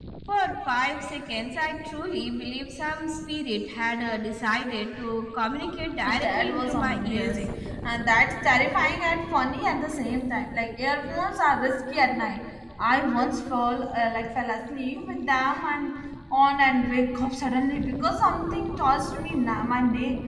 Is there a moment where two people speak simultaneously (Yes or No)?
Yes